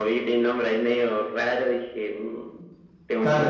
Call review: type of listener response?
taking over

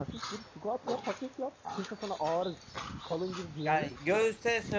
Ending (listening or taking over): taking over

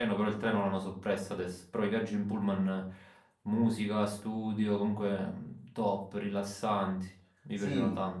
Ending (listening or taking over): taking over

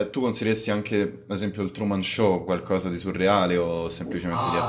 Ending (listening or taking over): taking over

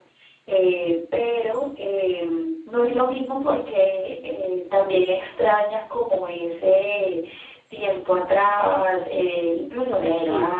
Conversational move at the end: taking over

